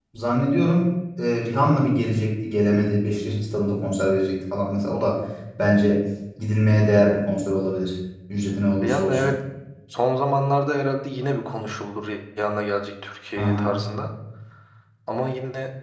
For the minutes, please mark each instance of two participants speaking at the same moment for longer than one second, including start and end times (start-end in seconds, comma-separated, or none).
none